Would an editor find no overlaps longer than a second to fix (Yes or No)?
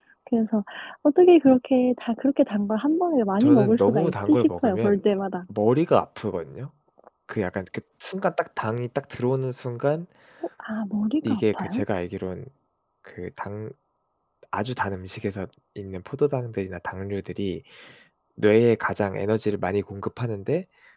No